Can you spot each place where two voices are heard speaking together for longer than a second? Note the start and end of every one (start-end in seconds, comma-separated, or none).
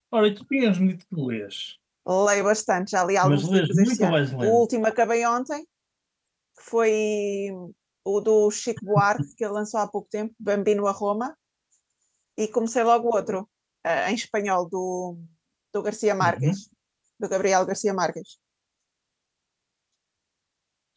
3.2-4.6